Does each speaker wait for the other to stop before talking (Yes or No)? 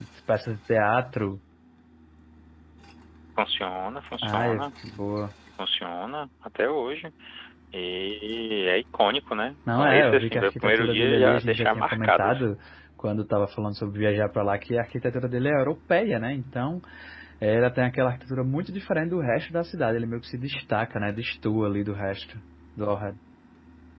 No